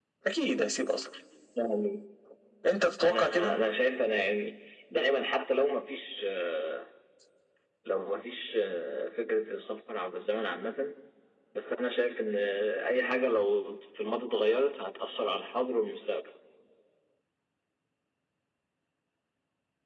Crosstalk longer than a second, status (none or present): none